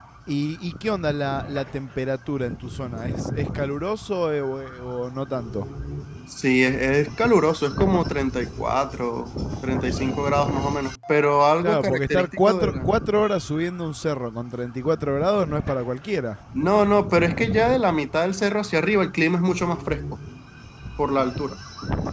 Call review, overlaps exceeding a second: present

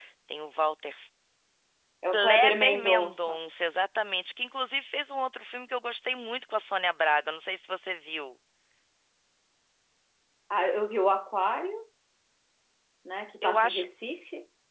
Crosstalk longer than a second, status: present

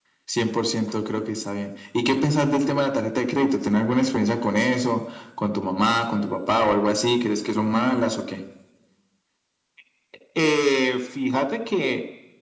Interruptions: none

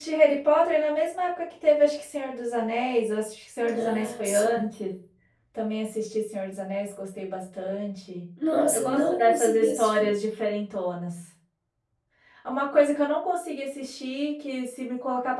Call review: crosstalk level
present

